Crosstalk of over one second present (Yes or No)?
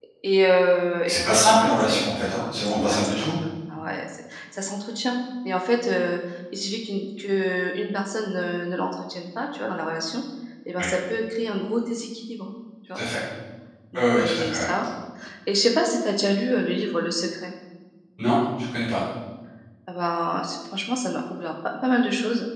Yes